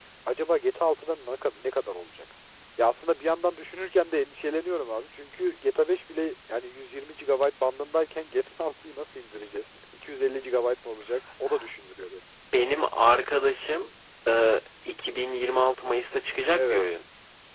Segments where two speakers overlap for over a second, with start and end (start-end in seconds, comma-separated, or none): none